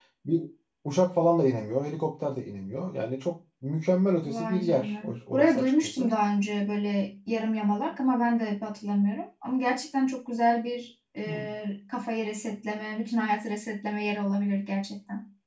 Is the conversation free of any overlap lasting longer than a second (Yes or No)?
No